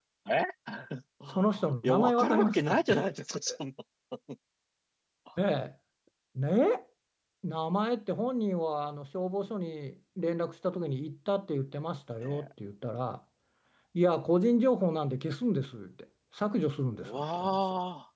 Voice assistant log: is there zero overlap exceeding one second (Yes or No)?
No